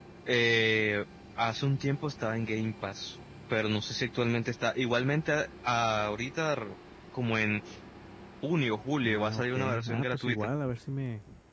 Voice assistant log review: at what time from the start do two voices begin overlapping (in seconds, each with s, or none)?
9.1 s